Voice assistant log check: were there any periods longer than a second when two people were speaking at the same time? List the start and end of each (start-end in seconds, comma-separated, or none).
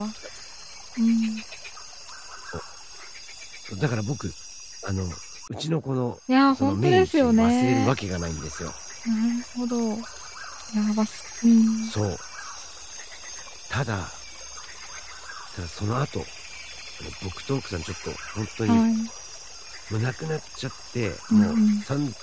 6.5-7.9